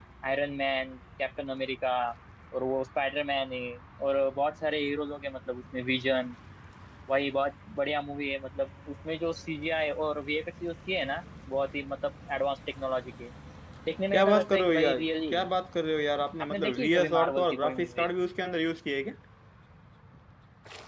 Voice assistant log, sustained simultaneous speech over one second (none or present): present